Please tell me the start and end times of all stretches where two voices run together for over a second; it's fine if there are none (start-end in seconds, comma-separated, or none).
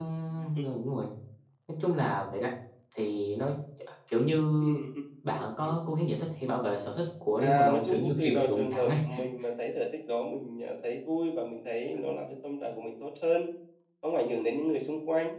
7.4-8.9